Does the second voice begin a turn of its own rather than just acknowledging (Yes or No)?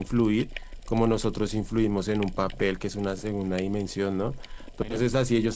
No